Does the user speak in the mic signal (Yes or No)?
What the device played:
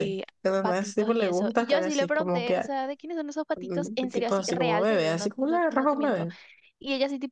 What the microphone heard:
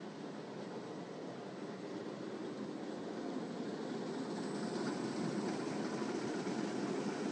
No